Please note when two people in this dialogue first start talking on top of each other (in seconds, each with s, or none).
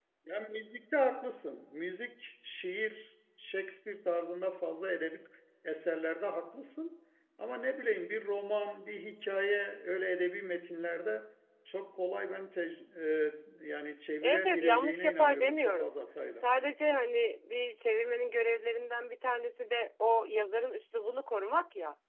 14.2 s